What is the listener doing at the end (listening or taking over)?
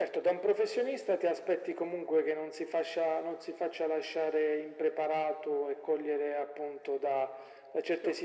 listening